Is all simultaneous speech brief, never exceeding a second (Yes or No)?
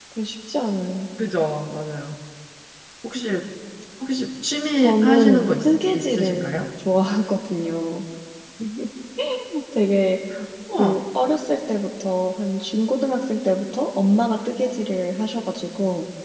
No